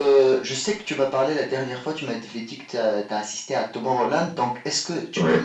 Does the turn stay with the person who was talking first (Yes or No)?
Yes